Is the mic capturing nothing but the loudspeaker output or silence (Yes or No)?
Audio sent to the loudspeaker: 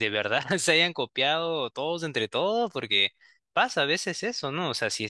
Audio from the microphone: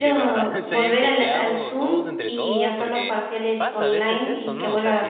No